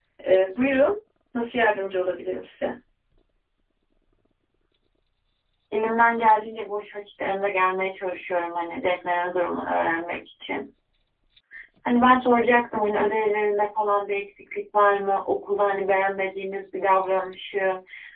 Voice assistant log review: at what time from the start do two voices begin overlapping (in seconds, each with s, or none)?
none